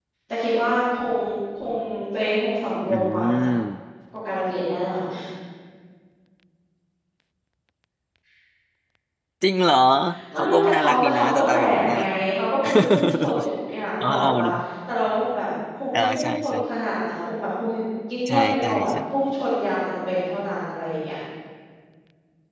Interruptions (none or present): present